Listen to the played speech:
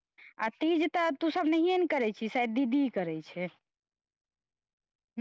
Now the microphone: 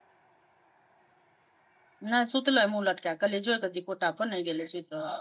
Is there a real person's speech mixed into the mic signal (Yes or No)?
Yes